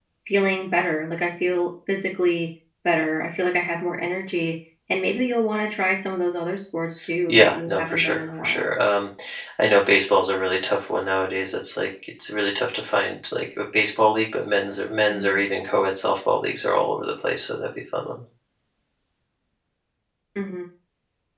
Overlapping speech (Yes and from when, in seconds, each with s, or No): Yes, from 7.3 s